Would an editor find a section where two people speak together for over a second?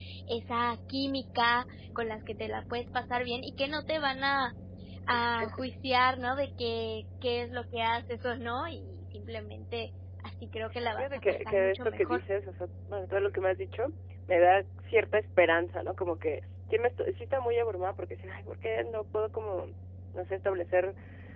Yes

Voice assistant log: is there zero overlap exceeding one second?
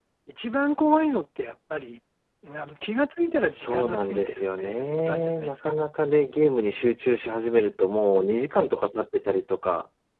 No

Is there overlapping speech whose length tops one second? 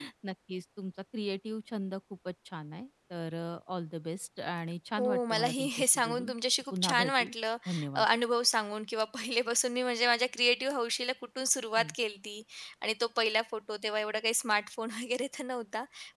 Yes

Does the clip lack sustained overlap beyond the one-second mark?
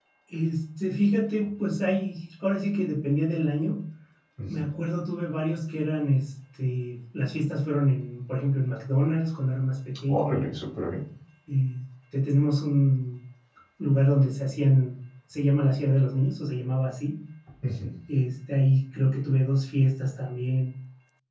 Yes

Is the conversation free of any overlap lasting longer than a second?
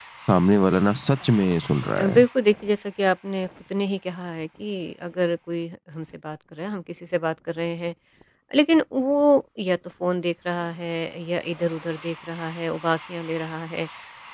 Yes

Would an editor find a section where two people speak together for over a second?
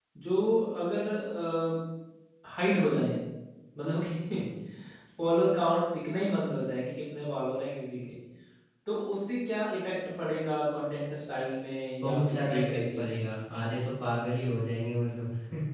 Yes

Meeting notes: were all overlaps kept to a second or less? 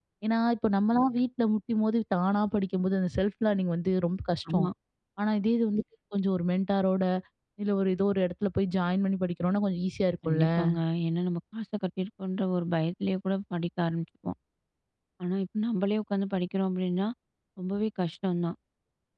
Yes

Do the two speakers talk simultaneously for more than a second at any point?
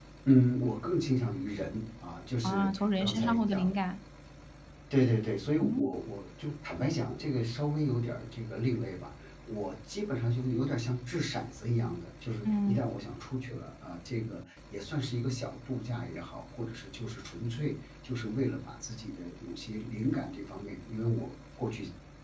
Yes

